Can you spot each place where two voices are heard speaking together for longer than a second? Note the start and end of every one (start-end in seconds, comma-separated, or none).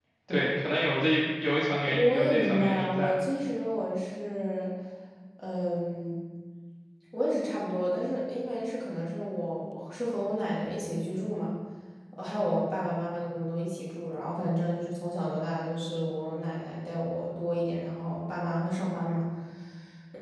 1.9-3.2